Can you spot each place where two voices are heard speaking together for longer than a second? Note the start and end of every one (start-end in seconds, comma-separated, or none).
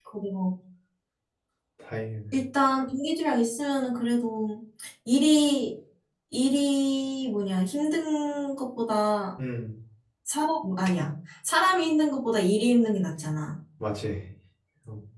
none